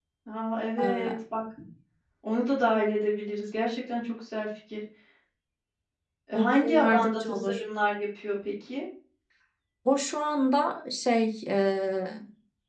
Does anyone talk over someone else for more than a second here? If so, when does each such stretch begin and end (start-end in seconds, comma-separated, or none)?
6.3-7.6